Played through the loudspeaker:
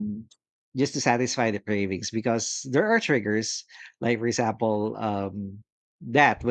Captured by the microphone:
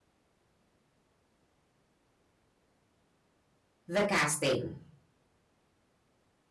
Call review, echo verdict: none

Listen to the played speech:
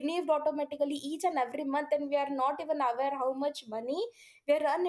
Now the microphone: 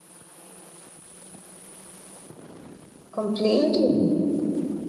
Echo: none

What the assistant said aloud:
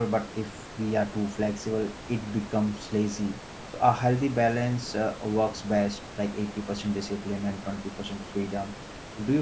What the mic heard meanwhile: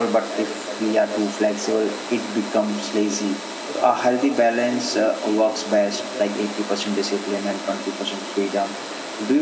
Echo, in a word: present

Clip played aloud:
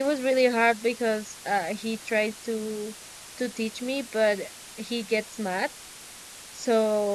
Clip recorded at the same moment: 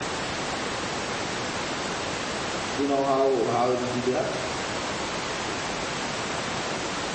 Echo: none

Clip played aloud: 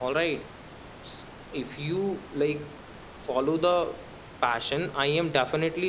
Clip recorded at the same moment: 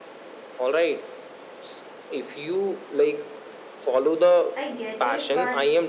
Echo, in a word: present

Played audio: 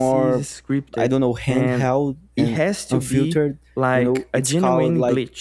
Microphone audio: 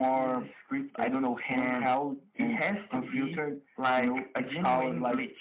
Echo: present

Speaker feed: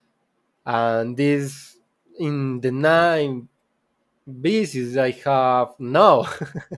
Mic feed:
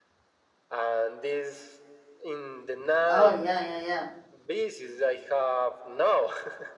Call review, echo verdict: present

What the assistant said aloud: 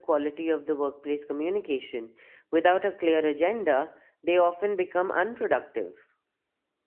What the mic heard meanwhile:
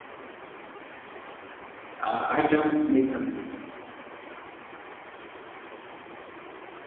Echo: none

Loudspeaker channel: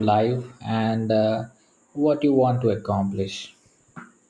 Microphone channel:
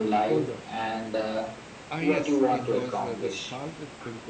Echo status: present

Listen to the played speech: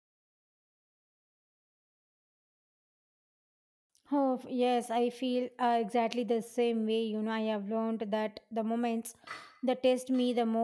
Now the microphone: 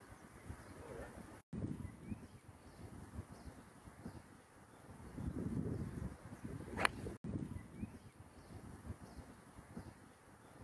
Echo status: none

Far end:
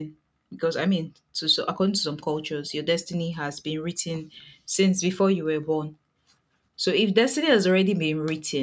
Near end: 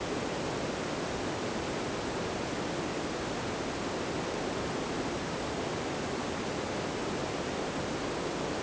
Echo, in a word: none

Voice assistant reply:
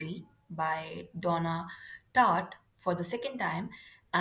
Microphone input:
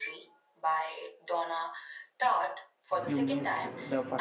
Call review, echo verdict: present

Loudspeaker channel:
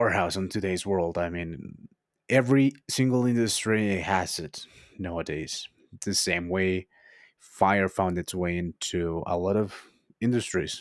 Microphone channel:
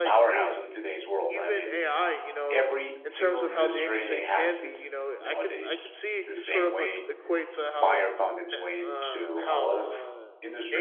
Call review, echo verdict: present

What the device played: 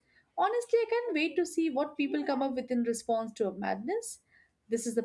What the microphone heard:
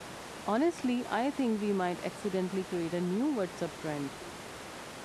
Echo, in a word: none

